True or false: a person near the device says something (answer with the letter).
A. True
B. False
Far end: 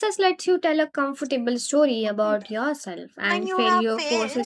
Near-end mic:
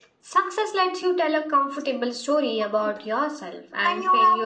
B